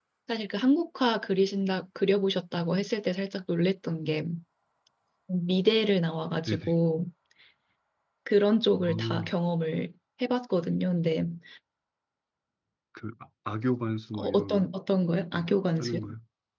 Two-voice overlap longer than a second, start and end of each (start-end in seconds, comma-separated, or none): none